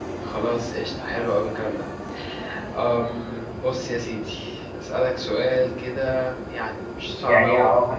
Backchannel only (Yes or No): No